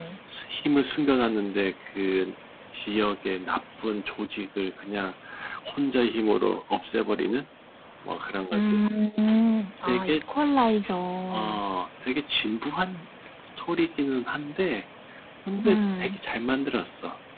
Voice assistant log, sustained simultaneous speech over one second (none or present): none